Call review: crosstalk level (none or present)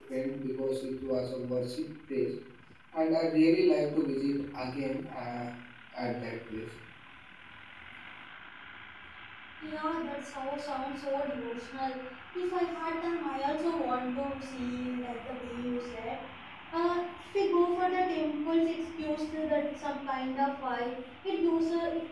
none